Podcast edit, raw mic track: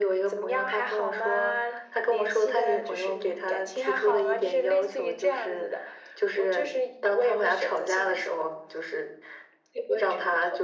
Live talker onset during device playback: none

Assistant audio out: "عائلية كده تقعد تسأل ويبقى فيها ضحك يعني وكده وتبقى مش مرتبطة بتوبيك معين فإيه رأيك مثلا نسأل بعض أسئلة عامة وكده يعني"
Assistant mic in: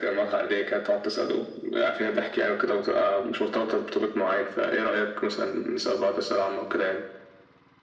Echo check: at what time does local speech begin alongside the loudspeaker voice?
none

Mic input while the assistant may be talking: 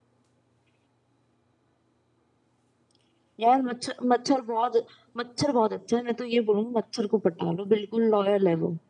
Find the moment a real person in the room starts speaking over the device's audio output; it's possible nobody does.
none

